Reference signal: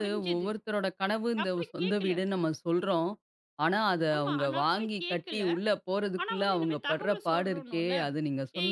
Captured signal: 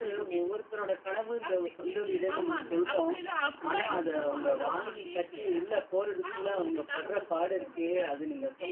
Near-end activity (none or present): present